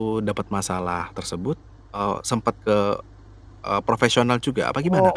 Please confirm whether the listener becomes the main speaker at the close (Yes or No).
Yes